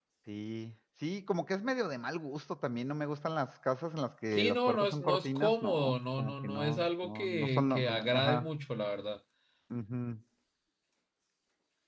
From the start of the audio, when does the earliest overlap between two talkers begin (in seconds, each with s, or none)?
4.3 s